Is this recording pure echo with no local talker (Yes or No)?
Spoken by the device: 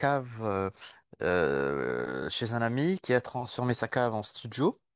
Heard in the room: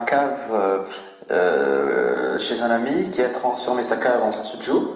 Yes